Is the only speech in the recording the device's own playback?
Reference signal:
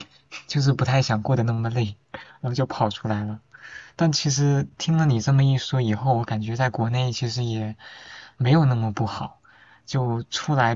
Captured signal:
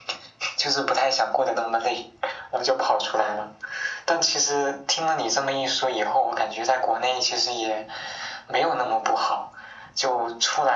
Yes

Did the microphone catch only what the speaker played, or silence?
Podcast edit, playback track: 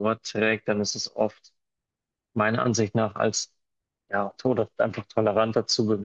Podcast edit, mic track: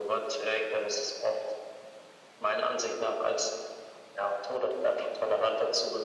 Yes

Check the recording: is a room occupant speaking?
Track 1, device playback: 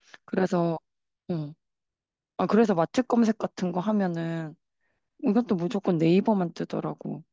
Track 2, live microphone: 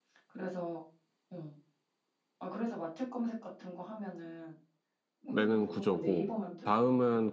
Yes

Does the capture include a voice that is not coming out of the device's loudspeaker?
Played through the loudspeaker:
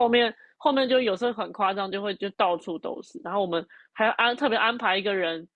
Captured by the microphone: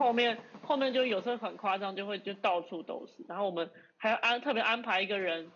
No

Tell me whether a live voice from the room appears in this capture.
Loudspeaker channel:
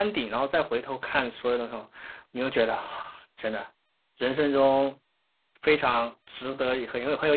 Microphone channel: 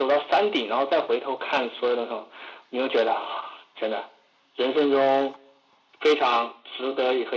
No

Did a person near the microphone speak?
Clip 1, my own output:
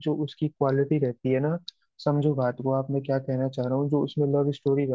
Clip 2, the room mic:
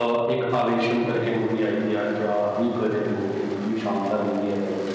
Yes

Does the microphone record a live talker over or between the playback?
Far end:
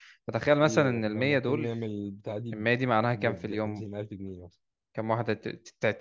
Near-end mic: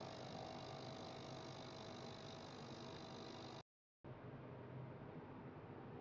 No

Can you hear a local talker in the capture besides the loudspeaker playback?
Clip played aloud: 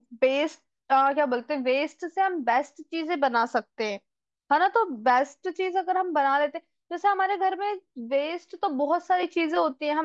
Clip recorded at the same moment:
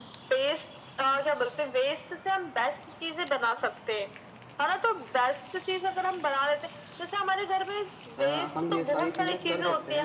Yes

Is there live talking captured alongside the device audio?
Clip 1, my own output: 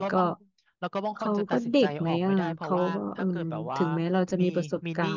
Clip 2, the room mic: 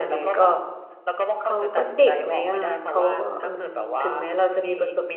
No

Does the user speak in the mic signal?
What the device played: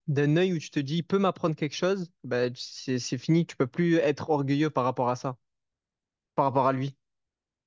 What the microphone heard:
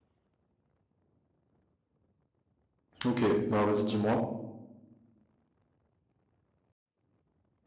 Yes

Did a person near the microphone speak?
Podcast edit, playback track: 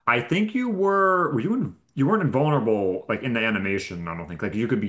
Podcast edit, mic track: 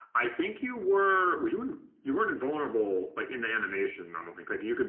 No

